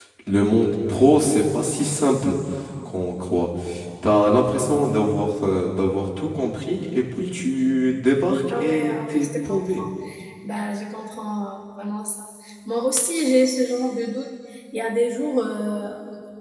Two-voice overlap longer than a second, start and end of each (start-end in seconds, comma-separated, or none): 8.6-9.8